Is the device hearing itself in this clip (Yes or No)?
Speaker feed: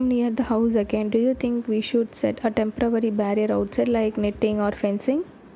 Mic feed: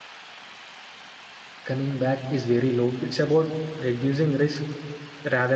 No